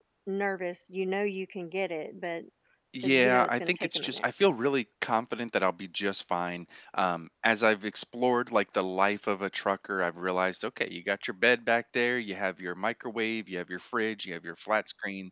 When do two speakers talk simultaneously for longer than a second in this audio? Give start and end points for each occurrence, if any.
3.0-4.2

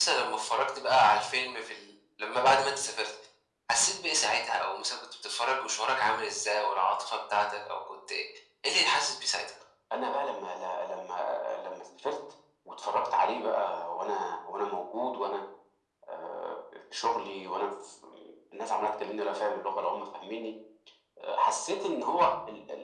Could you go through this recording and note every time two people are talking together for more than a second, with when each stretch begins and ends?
none

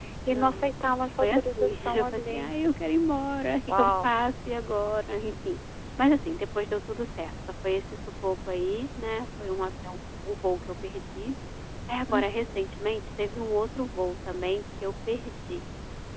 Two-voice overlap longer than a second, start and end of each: 1.2-2.5

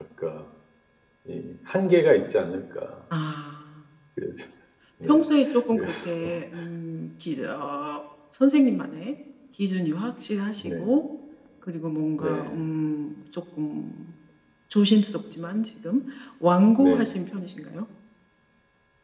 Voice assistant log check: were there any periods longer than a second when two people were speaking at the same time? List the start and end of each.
none

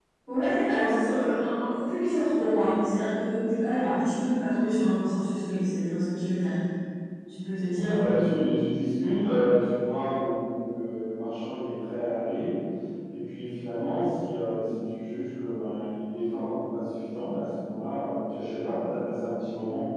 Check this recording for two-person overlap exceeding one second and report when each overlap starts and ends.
none

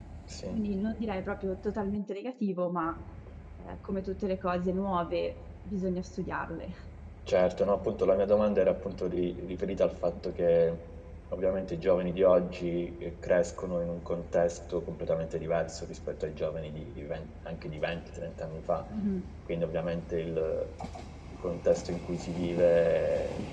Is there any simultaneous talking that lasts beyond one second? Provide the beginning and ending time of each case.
none

